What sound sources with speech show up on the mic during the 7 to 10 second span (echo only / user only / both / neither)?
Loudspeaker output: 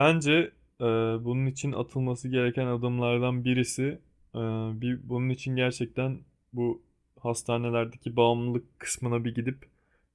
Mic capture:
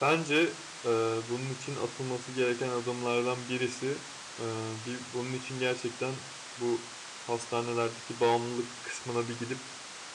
echo only